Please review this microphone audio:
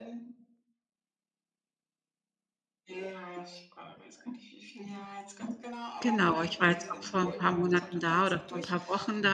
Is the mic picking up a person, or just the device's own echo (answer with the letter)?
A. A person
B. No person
A